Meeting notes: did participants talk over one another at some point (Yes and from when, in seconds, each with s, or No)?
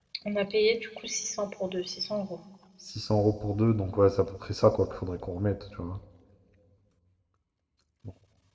No